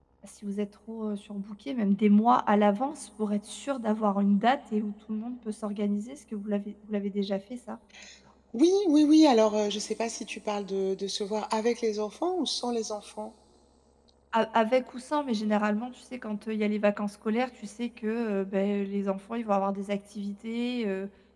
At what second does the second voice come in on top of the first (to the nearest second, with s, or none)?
none